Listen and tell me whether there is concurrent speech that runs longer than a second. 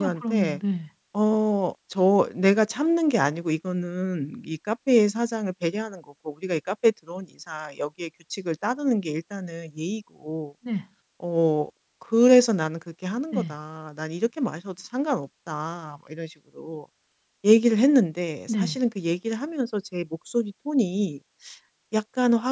No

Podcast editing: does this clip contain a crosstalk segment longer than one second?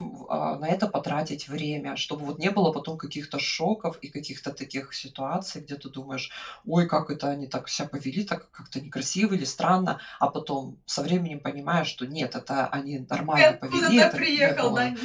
Yes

